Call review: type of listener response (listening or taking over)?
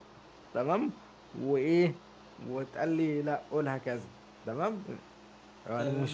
taking over